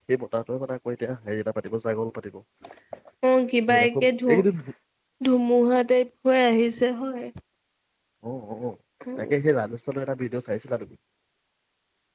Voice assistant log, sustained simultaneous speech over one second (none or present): none